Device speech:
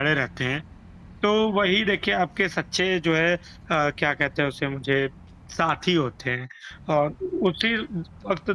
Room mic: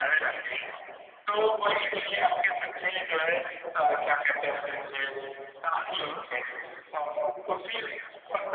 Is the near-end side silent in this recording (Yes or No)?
No